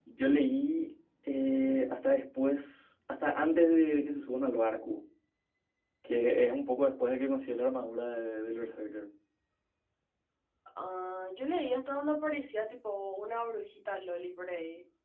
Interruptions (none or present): none